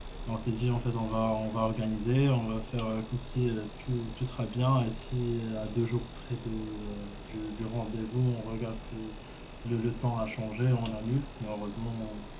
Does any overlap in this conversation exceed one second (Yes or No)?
No